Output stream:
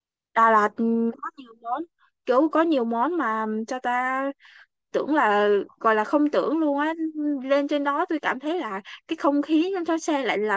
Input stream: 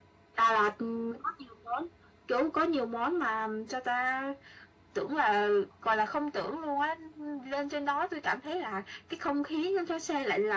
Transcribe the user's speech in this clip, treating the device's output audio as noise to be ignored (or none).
none